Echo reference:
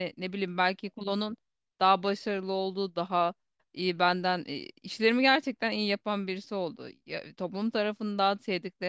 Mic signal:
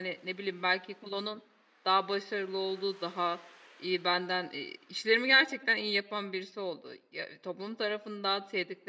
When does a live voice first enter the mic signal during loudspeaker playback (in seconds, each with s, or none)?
none